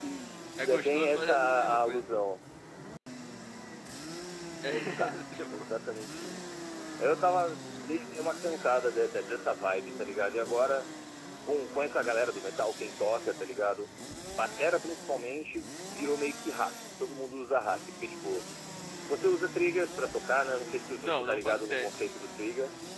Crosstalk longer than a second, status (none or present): present